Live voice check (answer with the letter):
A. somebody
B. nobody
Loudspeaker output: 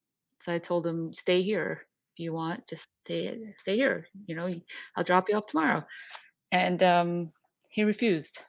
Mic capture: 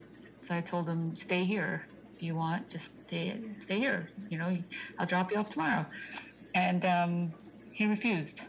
B